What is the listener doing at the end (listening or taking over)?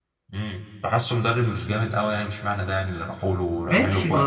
taking over